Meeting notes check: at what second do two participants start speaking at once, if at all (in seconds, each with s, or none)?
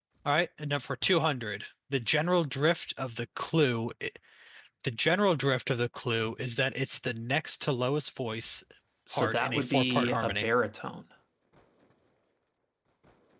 9.1 s